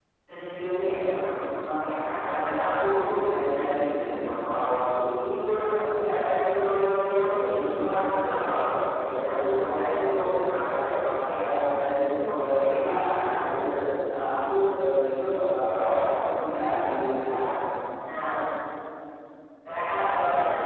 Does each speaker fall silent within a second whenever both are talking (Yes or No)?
No